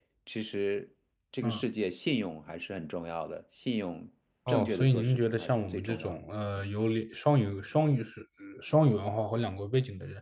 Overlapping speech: Yes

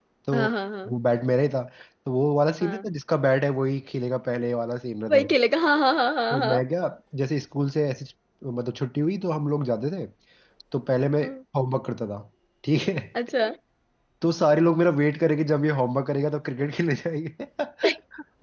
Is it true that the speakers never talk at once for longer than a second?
Yes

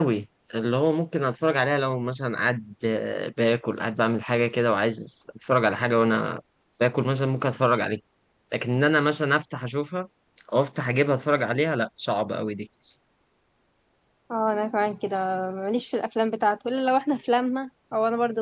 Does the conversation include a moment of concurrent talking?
No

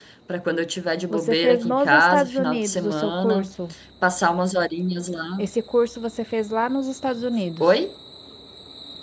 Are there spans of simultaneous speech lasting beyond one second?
Yes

